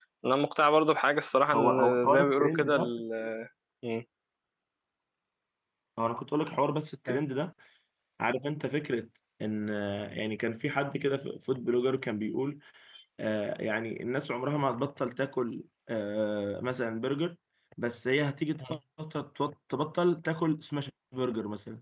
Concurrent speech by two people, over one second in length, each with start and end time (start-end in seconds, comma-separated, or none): 1.5-2.9